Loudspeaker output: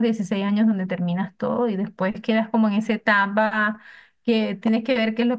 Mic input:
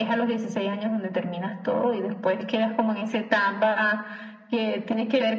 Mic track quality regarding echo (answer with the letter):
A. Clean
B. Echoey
B